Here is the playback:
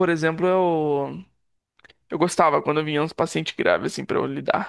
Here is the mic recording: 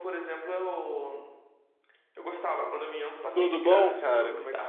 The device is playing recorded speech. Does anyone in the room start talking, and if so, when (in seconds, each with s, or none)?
3.3 s